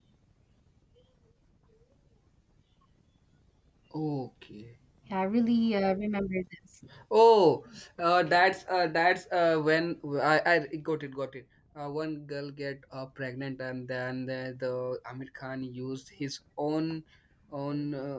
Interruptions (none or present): none